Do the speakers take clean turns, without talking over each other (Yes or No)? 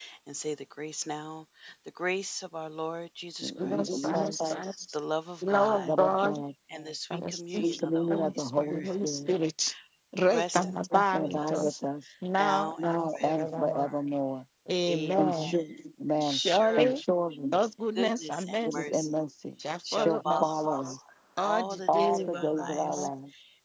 No